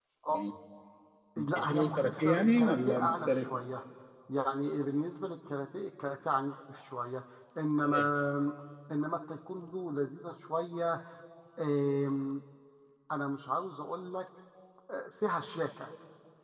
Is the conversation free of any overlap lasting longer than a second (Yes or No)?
No